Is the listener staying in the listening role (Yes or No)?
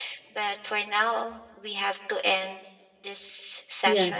No